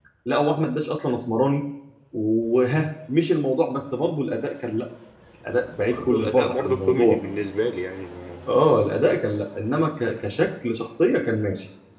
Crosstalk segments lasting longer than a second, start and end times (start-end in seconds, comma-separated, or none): 5.9-7.2